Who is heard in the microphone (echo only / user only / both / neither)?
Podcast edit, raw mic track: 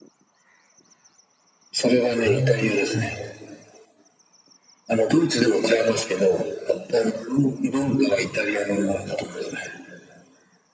both